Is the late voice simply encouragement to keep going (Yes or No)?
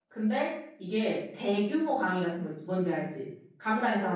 No